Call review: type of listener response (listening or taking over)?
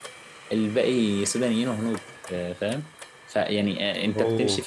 listening